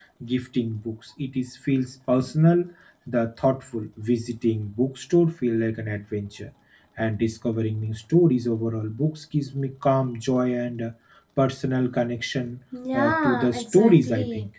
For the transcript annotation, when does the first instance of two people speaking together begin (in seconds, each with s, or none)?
12.7 s